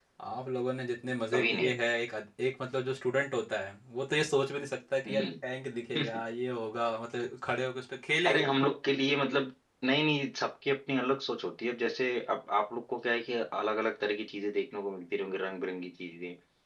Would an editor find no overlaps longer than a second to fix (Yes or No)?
Yes